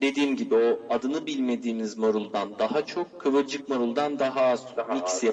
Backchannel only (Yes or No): Yes